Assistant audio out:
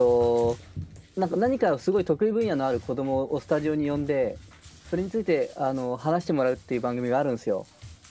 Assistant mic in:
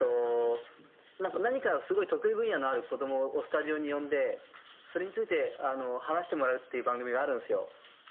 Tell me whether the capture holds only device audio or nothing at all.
Yes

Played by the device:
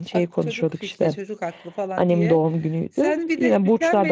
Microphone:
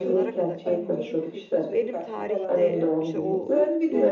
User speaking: Yes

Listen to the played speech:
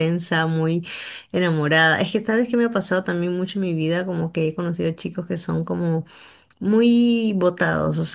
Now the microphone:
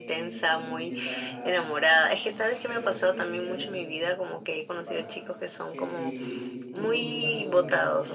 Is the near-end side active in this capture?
Yes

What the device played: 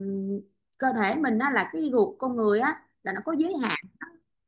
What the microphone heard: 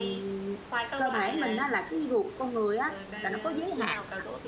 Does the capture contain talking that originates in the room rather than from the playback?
Yes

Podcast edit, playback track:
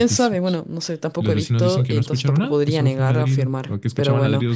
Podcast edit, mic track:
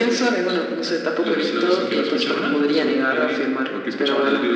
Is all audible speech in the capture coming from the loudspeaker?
Yes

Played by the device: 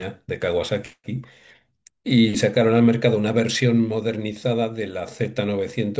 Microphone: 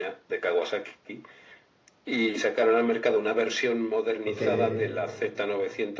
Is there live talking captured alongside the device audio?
Yes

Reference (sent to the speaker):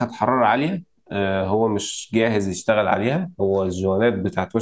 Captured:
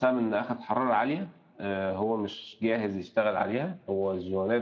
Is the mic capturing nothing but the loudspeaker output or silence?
Yes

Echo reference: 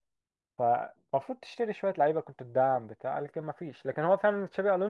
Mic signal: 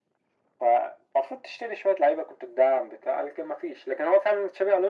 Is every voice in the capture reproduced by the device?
Yes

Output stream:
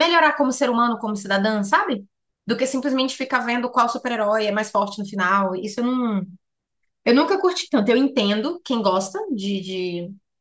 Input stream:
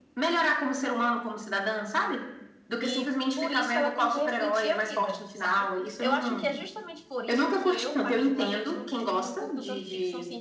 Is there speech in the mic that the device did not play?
Yes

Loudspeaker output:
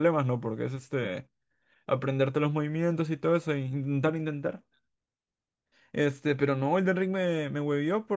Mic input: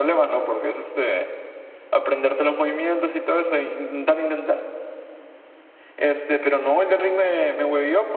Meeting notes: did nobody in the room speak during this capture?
Yes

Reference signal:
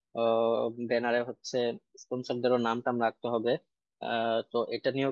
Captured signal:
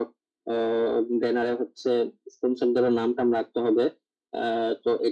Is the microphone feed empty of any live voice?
Yes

